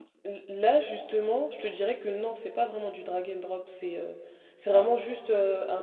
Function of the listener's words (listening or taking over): listening